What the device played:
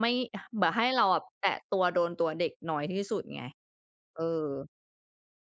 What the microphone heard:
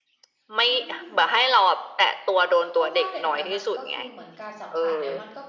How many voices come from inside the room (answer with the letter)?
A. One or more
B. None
A